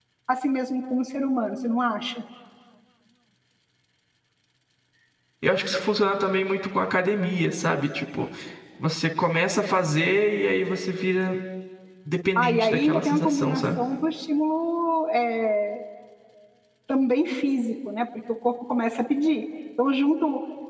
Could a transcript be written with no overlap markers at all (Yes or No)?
No